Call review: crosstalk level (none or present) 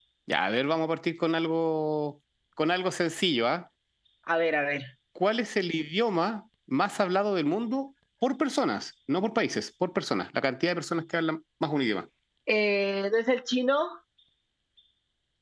none